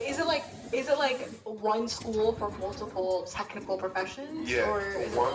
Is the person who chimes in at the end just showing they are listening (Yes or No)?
No